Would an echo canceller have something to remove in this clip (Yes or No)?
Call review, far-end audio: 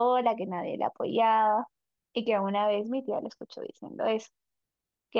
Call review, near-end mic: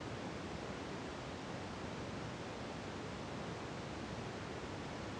No